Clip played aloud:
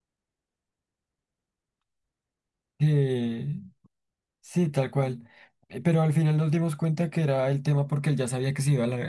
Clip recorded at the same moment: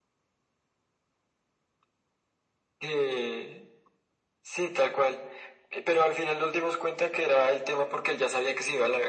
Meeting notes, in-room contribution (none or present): none